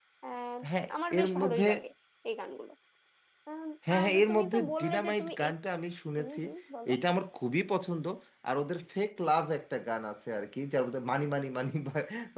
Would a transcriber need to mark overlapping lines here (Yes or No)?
Yes